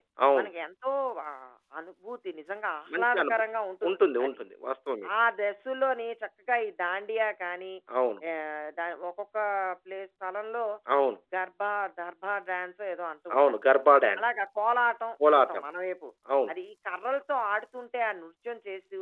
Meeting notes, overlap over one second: none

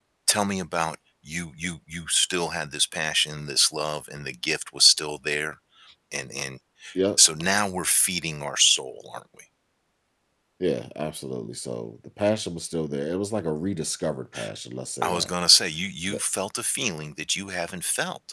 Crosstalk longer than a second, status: none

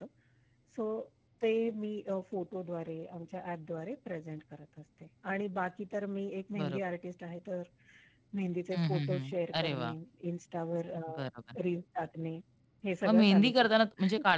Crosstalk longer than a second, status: present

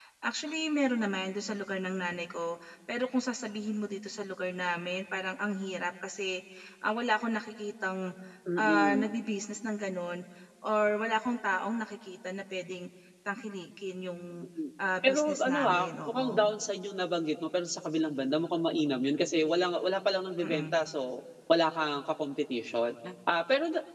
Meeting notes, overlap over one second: present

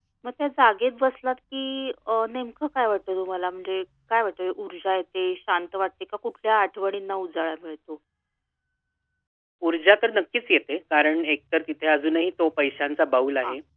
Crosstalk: none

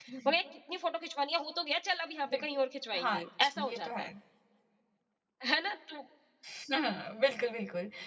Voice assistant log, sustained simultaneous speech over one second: none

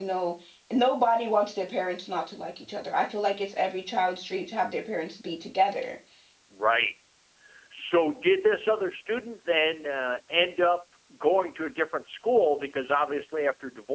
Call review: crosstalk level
none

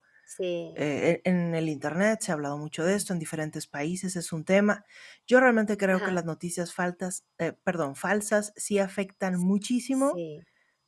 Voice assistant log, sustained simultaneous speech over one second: none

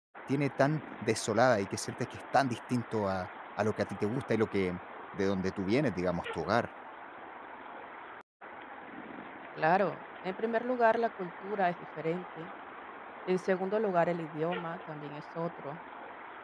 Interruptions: none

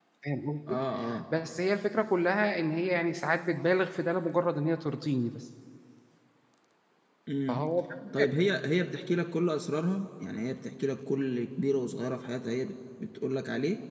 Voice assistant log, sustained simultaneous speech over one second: none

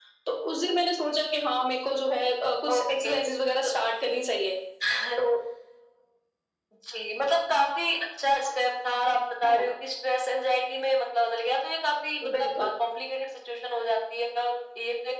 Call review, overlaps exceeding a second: none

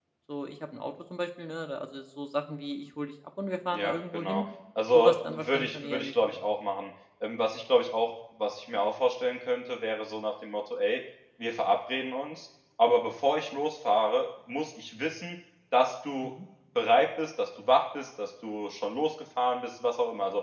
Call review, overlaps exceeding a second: present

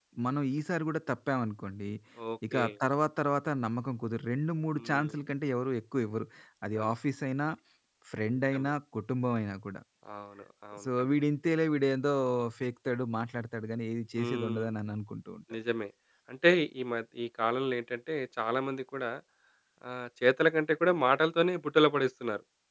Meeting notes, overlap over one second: none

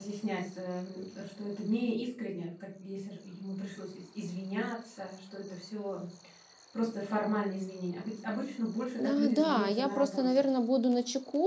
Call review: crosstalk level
present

